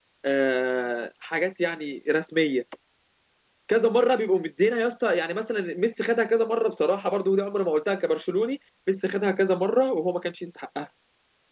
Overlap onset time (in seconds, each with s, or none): none